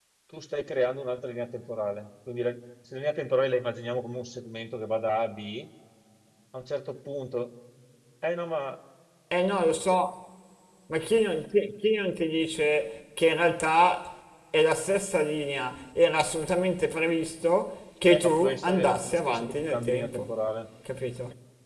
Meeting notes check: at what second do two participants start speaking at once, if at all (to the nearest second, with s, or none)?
18 s